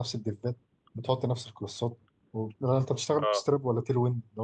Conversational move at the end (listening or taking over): listening